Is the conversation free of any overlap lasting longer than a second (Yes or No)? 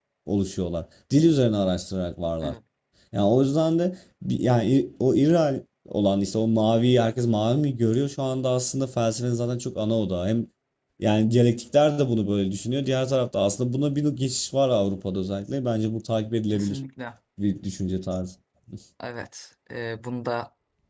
Yes